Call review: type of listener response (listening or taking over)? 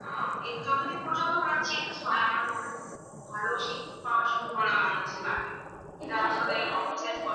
taking over